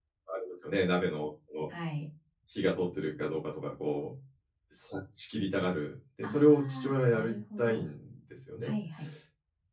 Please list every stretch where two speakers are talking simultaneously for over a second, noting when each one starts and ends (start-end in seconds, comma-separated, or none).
6.2-7.8